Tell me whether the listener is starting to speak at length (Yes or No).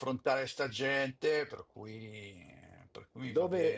Yes